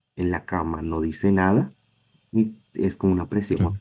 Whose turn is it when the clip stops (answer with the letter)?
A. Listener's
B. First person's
B